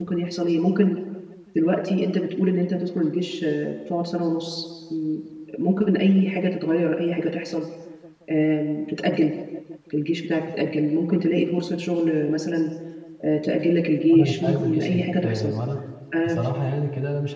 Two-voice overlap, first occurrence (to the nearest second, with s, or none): 14 s